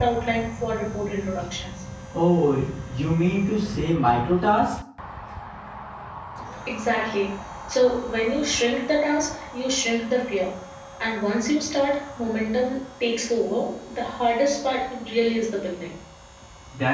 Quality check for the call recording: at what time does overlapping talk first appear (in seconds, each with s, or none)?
none